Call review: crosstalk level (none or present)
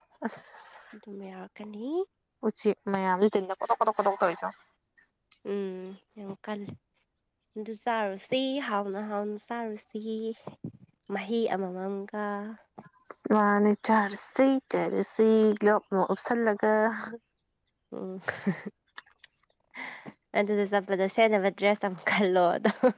none